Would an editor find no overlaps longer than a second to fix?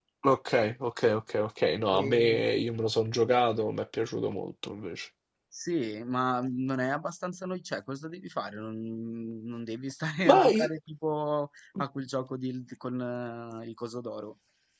Yes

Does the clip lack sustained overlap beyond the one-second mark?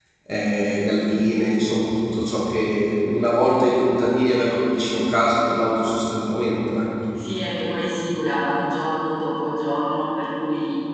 Yes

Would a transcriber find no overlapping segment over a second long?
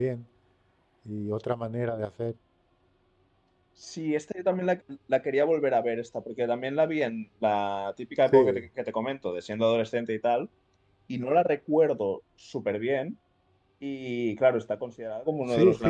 Yes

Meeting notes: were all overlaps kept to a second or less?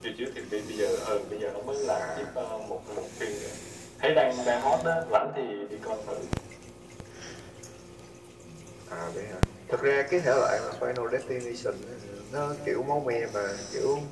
Yes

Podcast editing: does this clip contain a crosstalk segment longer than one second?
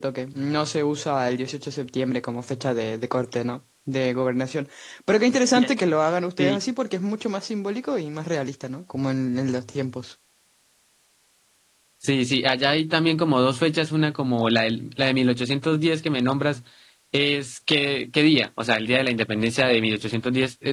No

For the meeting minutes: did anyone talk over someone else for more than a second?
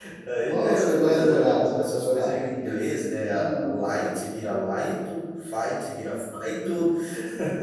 Yes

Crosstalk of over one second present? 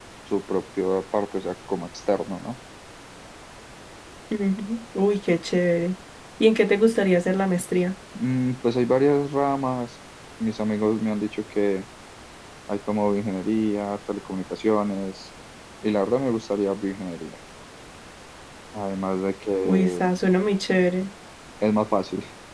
No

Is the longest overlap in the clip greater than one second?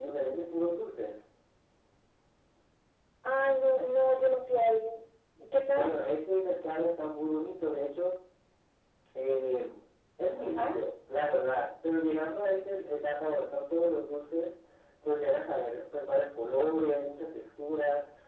No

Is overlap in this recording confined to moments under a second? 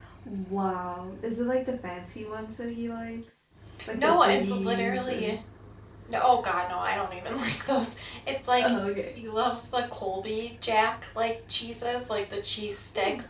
No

